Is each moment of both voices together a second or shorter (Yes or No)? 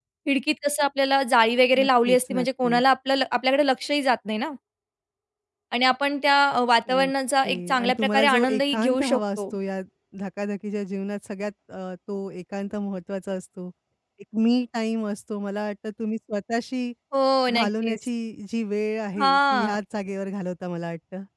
No